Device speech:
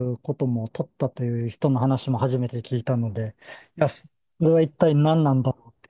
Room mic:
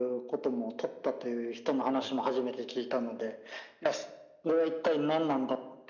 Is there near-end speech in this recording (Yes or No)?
Yes